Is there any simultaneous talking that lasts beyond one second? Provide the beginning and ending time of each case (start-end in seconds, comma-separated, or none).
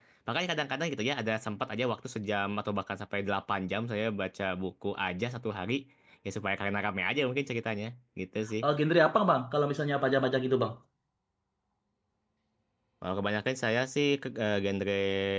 none